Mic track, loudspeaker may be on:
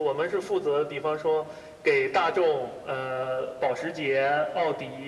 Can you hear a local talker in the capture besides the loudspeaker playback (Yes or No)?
No